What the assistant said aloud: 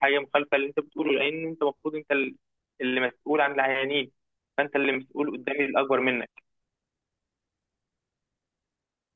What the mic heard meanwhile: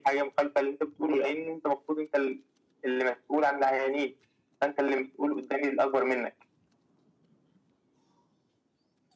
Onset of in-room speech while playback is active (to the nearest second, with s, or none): none